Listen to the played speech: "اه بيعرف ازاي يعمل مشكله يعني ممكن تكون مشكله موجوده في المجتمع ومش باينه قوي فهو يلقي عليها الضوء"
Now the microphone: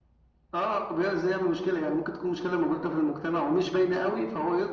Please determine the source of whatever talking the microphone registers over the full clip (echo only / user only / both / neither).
echo only